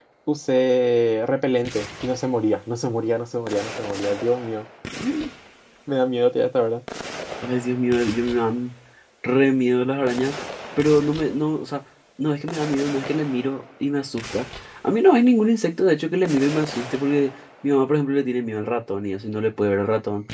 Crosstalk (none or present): none